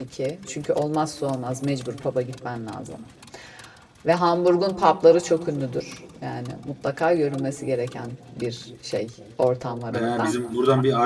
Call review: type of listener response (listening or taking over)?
taking over